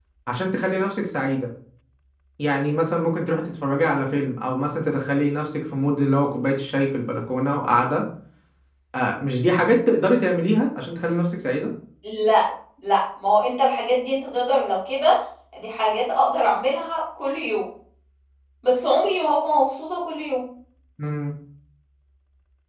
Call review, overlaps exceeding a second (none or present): none